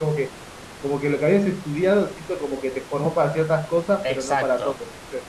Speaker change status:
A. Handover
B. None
A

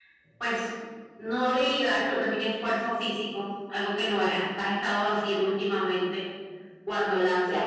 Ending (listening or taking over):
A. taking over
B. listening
B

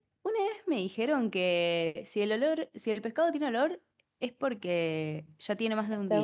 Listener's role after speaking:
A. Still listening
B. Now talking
B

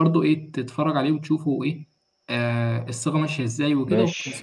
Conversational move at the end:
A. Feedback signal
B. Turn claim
A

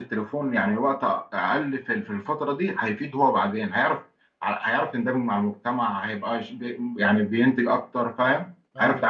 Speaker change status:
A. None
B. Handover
B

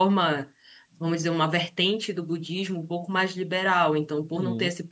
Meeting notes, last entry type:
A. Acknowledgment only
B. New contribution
A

